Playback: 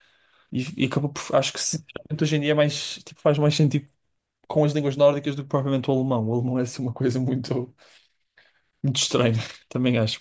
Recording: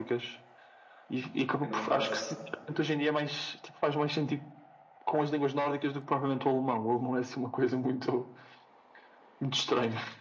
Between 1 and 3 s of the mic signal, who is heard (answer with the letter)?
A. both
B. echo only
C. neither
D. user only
A